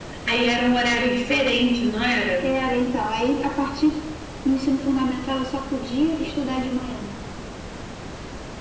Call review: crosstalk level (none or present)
none